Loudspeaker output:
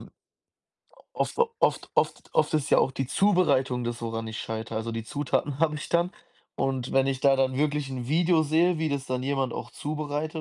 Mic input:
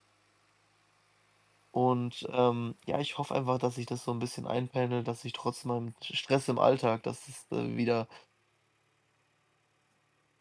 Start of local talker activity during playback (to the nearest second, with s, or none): 2 s